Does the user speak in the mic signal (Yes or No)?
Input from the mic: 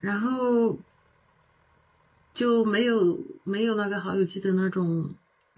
Yes